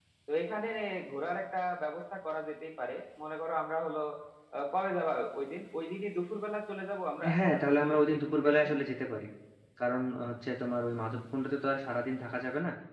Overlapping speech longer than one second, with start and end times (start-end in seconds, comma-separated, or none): 7.3-8.7